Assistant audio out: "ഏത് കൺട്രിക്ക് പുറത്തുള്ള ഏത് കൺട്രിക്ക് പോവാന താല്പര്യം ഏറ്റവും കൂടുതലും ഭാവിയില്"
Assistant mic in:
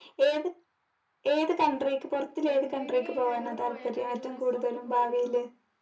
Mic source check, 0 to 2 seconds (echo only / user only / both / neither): echo only